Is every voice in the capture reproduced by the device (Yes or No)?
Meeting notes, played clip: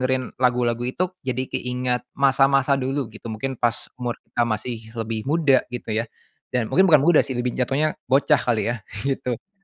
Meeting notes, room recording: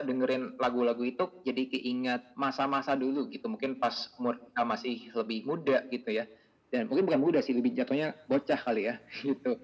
Yes